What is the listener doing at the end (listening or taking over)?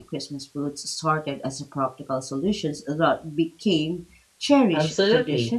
taking over